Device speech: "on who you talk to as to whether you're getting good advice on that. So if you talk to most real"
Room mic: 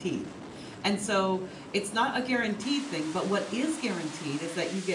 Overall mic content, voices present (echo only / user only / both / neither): user only